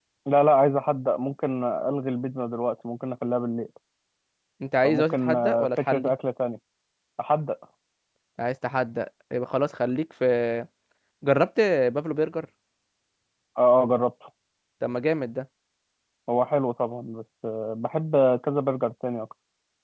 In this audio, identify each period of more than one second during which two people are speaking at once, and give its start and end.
4.8-6.1

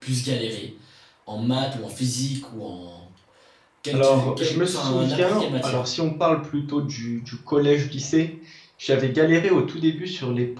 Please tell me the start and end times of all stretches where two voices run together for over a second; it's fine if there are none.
3.9-5.8

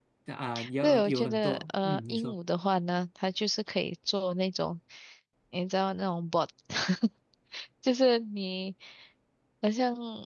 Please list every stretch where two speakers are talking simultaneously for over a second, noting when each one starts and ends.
0.8-2.4

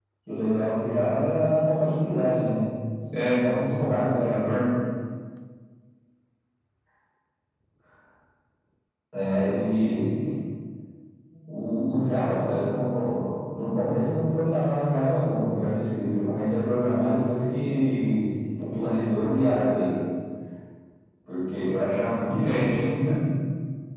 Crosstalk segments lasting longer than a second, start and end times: 3.2-4.5

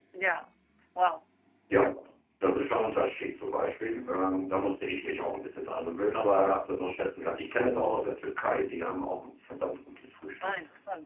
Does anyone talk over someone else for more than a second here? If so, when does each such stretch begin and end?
none

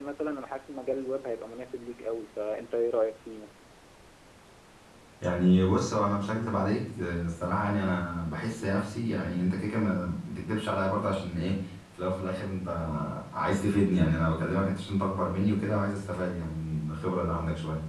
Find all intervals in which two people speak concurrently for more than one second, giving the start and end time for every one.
none

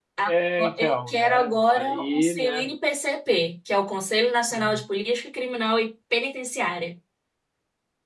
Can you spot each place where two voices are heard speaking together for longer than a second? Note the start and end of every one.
0.8-2.6

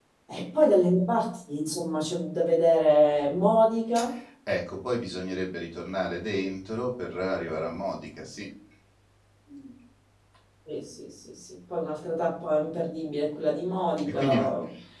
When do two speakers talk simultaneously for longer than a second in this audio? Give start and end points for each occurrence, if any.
none

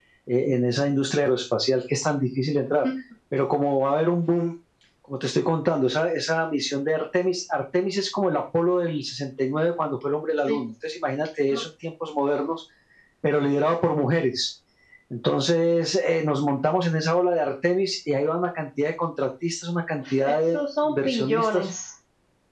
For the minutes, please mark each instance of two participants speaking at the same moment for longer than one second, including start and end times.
20.0-21.7

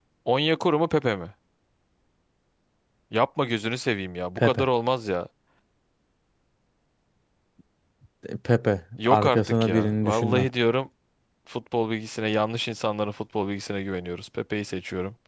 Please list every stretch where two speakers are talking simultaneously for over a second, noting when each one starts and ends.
9.1-10.5

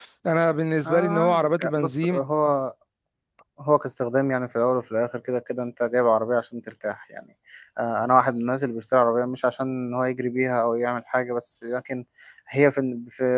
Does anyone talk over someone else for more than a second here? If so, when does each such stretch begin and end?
0.9-2.2

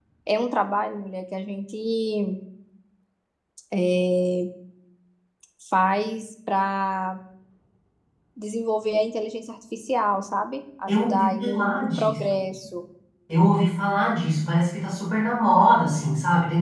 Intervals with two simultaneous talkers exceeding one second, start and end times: 10.9-12.2

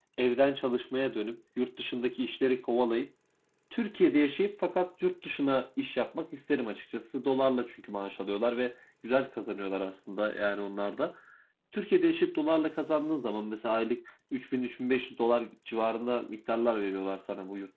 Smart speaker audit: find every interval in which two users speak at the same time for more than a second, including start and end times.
none

